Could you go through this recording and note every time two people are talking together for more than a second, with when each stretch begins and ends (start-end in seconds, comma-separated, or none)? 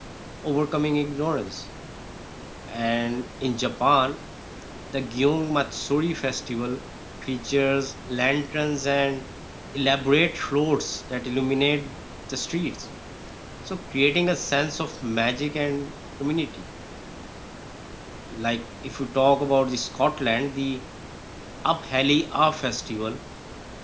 none